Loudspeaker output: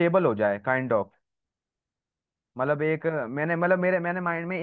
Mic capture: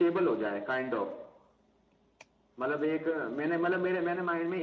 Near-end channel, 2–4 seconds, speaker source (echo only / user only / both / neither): echo only